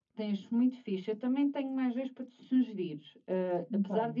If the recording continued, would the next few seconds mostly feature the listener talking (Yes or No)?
No